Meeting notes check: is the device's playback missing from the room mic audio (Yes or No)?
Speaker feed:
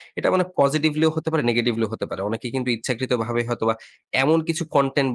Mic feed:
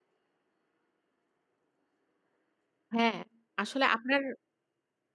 Yes